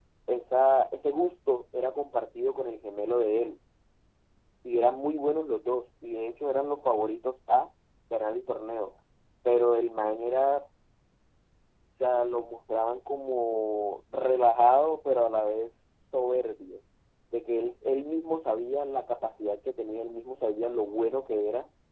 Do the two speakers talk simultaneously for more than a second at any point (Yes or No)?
No